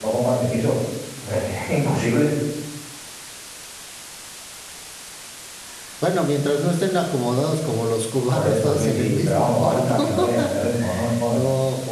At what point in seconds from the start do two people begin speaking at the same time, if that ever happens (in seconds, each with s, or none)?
8.3 s